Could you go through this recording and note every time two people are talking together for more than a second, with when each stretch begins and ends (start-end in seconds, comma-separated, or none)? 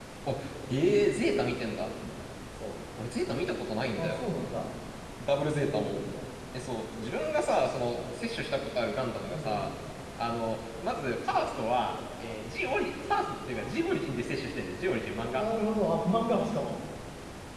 none